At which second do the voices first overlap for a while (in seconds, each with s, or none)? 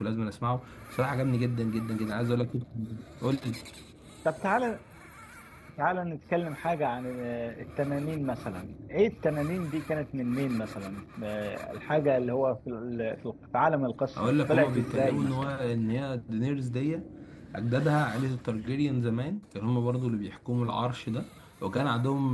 14.2 s